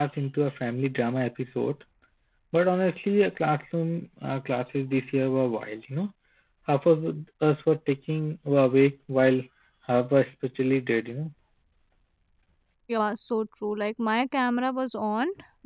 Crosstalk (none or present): none